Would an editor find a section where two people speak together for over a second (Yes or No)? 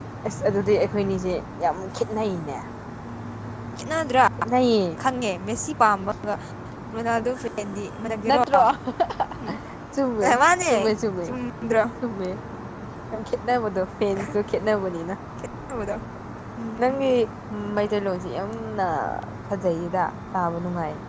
No